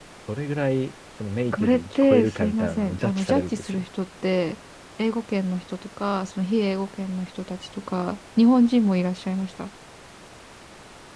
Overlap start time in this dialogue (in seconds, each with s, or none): 1.4 s